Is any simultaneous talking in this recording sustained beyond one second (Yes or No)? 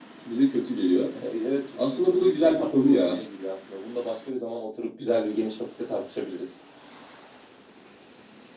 Yes